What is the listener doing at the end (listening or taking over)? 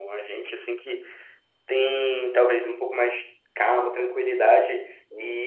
listening